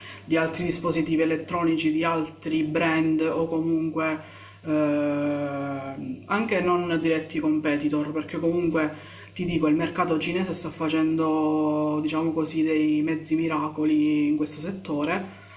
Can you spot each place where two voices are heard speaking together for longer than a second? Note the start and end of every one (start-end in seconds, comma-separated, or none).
none